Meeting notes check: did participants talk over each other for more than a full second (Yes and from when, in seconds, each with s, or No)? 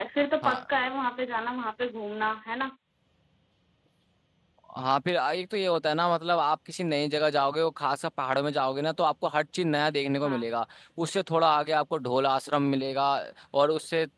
No